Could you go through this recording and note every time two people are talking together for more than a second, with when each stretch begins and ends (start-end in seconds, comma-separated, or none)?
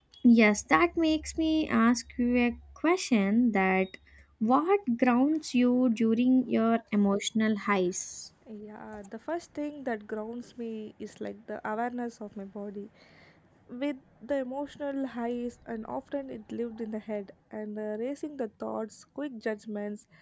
none